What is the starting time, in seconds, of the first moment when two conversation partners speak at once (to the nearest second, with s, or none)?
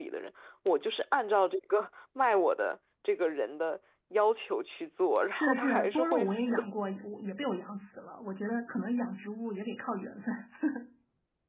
5 s